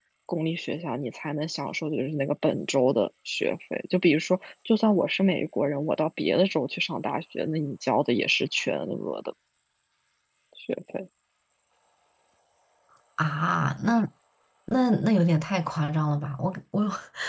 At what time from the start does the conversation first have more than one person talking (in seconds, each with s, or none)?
none